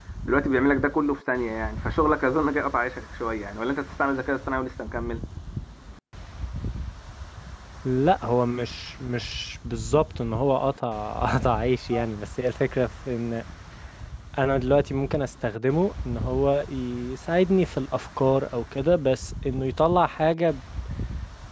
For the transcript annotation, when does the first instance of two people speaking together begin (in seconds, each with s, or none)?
none